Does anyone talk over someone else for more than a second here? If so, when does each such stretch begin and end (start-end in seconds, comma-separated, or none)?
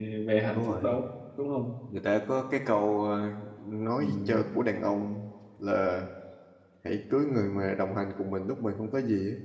none